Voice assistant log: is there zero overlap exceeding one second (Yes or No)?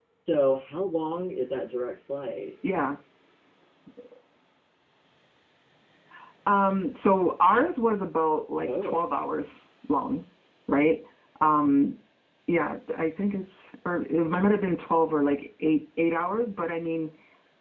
Yes